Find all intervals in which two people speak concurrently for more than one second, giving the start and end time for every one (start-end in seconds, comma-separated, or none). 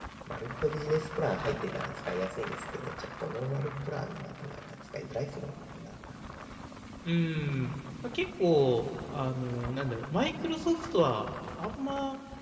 none